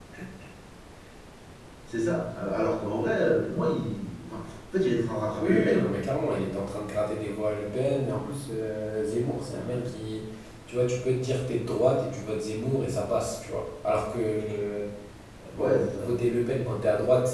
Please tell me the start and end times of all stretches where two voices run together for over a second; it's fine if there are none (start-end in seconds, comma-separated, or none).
none